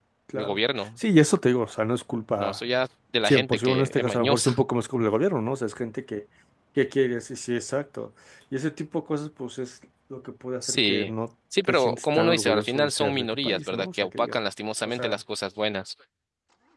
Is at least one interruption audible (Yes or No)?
Yes